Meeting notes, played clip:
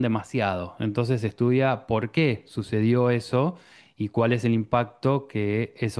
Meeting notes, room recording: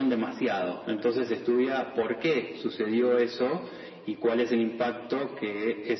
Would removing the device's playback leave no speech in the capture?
Yes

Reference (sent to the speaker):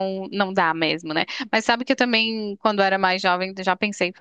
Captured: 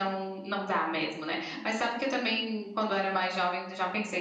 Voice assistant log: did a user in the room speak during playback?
No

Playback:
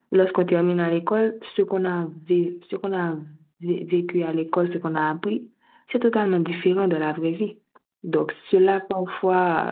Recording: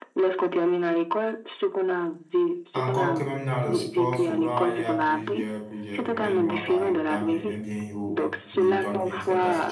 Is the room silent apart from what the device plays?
No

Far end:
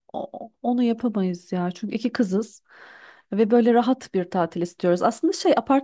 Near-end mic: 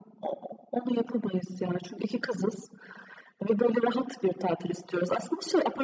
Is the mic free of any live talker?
Yes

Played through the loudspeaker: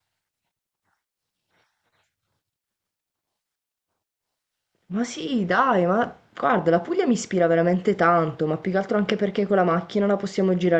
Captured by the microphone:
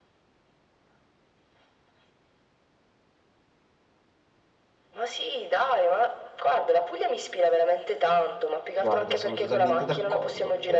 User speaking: Yes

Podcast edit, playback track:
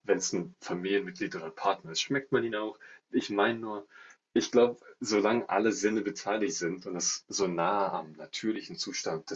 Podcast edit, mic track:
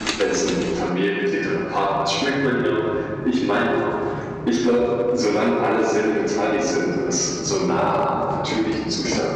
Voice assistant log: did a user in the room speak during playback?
No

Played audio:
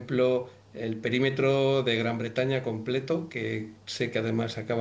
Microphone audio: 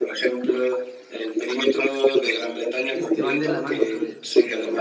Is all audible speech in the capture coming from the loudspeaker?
No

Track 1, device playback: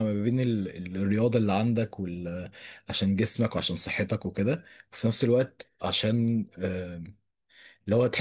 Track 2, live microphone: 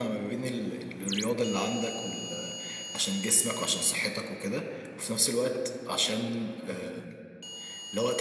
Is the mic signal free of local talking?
Yes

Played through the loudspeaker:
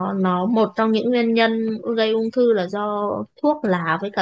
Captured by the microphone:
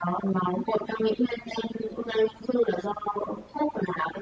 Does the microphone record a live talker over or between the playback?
No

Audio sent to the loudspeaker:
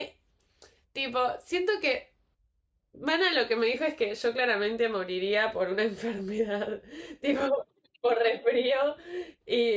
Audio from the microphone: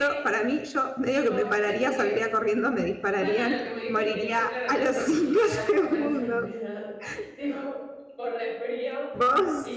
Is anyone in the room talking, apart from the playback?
Yes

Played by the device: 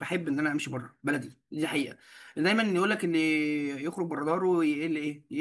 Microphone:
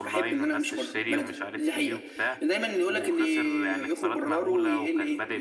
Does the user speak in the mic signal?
Yes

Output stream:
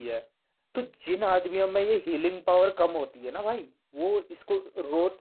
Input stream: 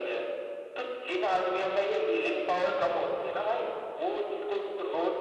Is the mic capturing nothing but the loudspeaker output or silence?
Yes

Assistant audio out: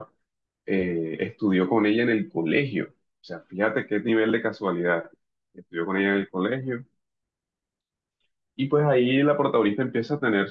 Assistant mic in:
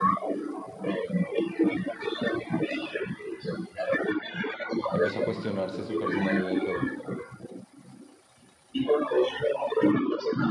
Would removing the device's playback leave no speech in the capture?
No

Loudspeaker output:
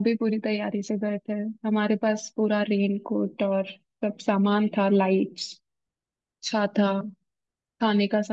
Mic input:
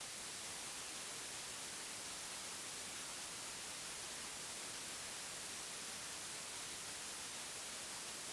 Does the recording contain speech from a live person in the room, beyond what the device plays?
No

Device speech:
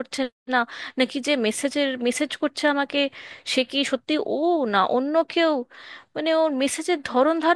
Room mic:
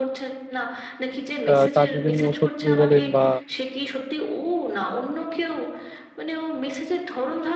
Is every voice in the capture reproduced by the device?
No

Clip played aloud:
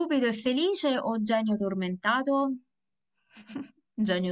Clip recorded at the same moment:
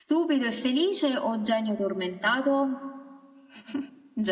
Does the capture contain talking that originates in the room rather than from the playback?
No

